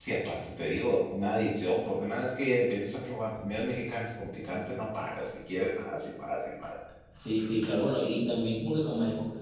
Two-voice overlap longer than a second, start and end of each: none

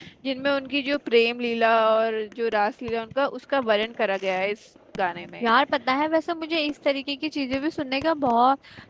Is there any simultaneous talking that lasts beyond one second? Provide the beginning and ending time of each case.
none

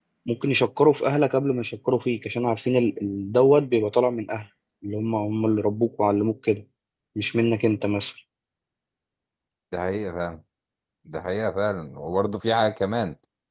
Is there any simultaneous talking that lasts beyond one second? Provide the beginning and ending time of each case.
none

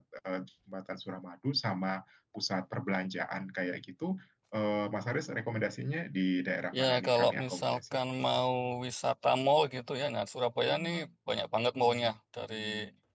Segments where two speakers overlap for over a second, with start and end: 6.8-8.0

